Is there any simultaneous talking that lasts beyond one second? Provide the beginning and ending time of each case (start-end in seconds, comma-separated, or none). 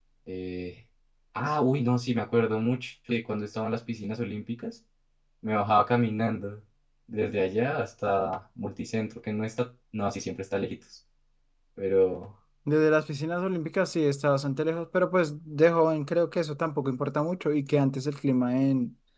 none